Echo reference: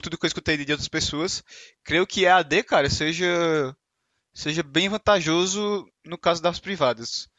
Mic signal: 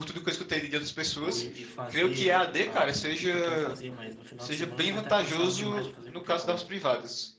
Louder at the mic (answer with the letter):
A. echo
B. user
A